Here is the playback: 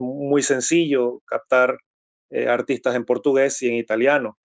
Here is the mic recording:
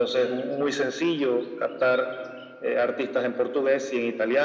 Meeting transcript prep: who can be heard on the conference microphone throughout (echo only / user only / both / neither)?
echo only